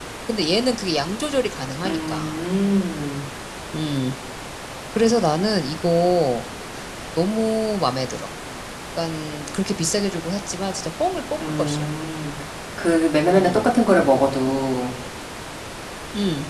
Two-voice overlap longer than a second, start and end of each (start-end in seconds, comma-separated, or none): none